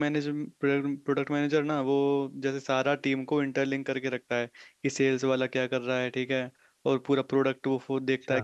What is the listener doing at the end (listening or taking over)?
listening